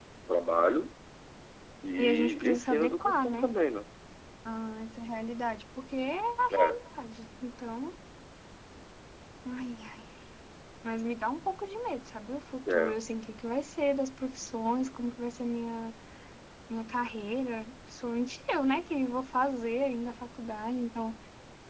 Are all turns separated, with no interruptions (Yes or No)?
No